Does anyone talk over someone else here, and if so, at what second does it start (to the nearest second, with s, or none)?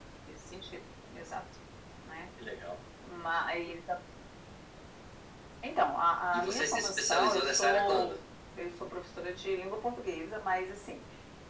6 s